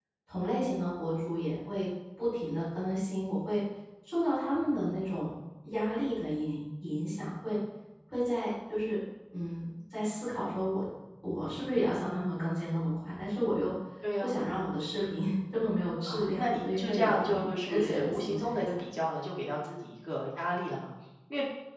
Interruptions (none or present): present